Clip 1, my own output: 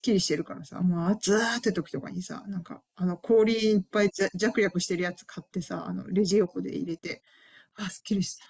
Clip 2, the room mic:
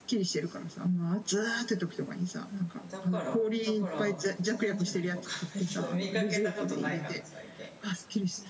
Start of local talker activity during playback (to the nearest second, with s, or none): 3 s